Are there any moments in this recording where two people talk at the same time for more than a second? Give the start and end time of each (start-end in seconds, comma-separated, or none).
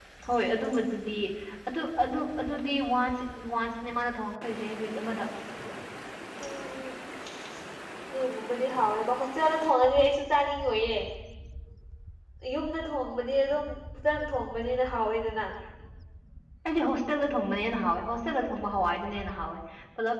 none